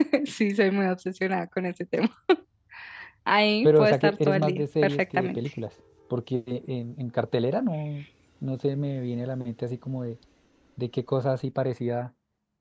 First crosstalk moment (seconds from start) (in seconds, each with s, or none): 3.6 s